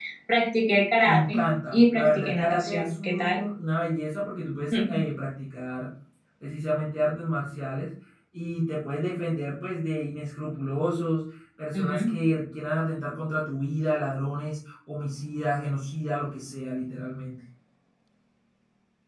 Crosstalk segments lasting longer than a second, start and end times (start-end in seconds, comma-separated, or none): 1.1-3.4